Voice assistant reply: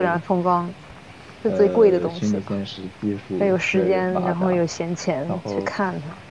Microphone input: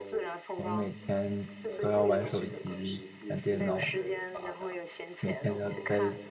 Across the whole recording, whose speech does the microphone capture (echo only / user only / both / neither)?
both